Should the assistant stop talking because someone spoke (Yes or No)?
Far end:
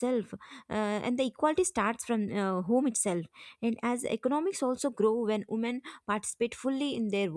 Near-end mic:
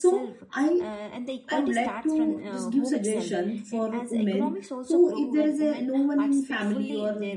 Yes